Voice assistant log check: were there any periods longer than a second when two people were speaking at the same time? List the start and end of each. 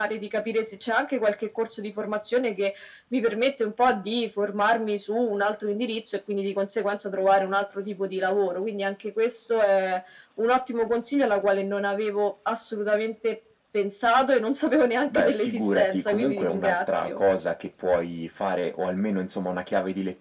15.1-17.2

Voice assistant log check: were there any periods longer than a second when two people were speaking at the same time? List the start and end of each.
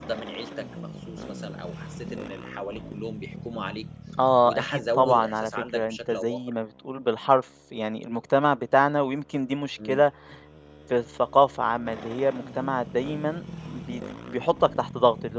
4.4-6.4

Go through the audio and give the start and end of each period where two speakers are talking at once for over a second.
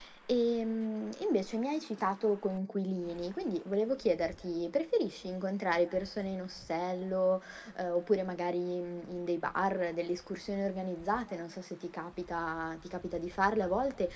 none

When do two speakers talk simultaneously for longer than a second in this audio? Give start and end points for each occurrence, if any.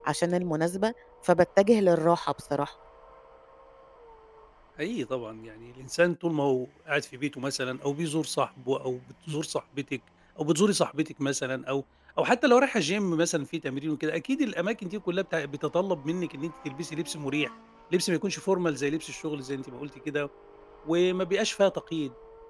none

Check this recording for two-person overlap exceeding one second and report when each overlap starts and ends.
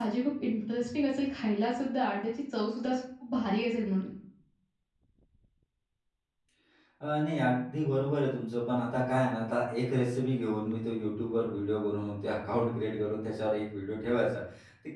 none

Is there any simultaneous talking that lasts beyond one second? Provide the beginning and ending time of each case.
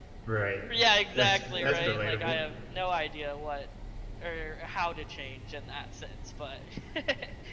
1.1-2.4

